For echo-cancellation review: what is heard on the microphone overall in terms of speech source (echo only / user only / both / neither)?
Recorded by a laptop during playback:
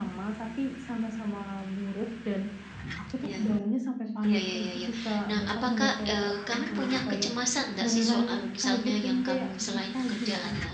both